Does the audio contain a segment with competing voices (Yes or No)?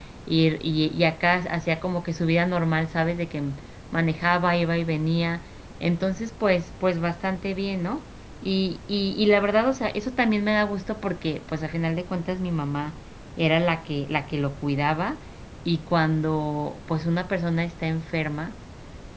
No